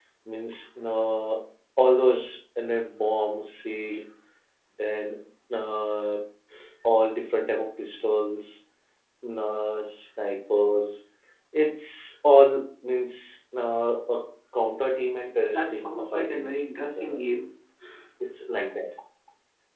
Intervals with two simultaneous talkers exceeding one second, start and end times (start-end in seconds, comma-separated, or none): 15.5-17.2